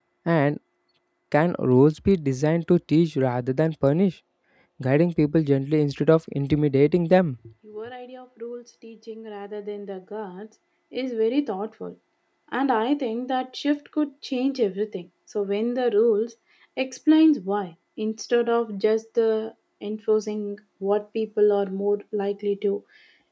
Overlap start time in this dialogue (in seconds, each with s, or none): none